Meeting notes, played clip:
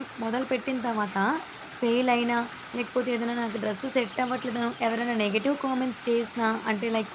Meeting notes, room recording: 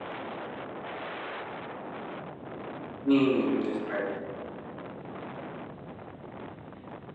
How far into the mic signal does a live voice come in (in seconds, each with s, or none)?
3.1 s